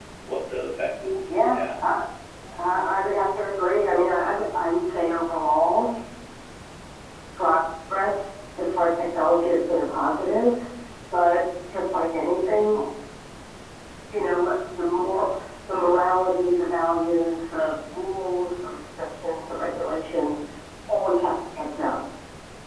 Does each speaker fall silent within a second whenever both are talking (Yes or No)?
Yes